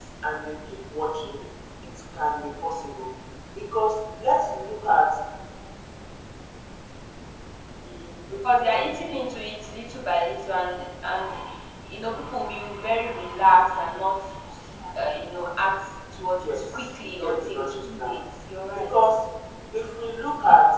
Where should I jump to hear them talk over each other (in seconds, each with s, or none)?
16.4 s